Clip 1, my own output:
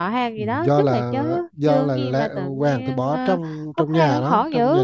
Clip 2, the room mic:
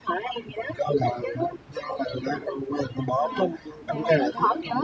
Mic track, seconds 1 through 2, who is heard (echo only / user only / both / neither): echo only